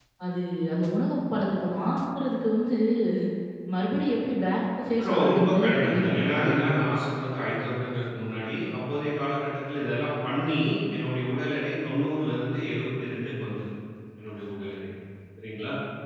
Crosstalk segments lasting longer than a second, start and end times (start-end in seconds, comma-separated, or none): 5.1-6.6